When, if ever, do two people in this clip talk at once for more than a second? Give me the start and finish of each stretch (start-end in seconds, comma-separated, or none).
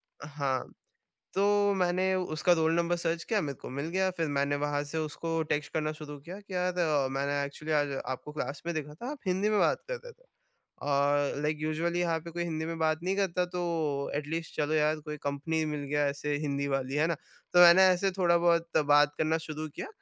none